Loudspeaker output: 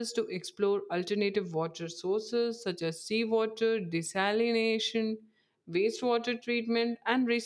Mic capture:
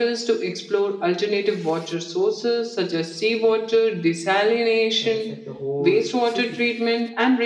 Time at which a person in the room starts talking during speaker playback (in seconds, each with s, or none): 5.0 s